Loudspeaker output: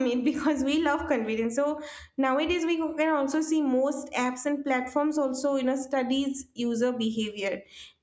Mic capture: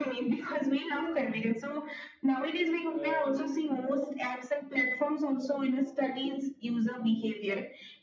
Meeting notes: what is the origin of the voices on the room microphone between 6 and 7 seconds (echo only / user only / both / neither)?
echo only